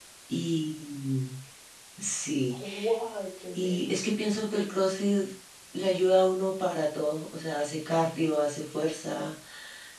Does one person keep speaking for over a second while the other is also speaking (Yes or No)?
No